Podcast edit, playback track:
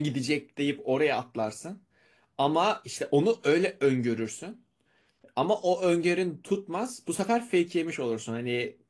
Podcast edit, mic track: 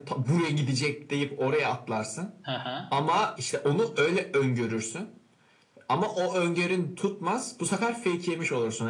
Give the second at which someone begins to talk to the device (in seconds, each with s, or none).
2.4 s